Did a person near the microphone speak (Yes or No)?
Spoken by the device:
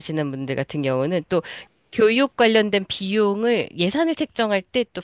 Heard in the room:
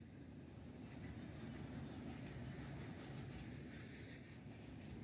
No